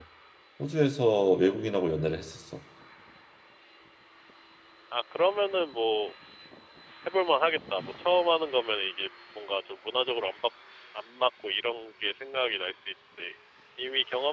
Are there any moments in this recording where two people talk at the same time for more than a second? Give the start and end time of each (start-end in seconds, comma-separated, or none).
none